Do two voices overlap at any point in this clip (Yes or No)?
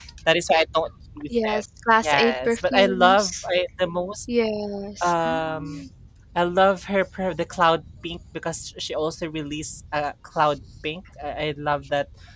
Yes